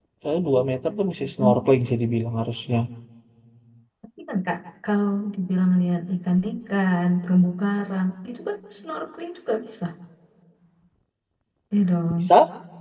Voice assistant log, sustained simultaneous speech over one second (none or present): none